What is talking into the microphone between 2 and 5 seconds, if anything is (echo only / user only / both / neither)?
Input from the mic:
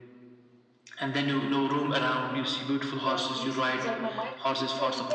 both